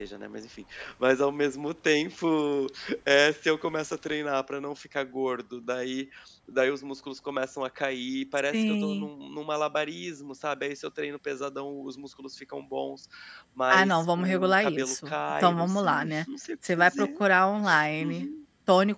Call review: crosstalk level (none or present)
present